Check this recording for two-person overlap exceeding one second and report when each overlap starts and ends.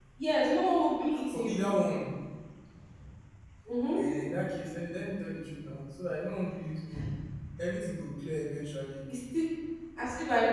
none

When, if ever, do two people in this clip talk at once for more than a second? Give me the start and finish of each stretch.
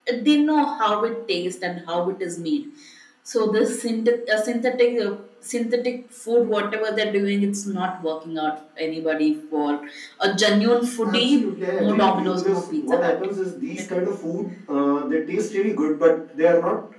11.1-13.2

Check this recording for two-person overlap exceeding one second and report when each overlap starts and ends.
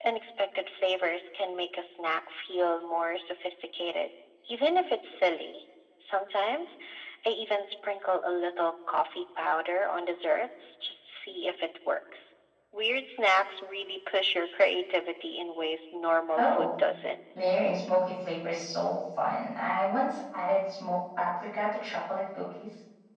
none

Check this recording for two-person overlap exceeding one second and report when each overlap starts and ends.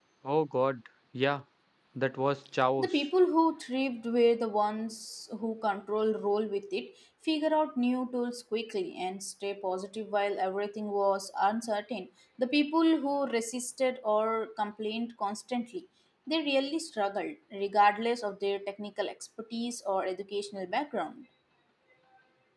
none

